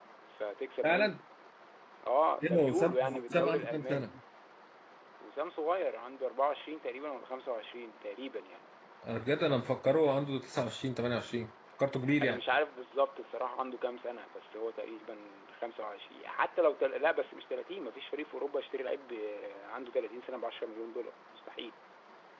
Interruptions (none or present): present